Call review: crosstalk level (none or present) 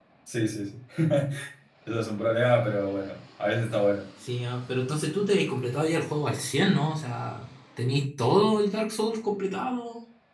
none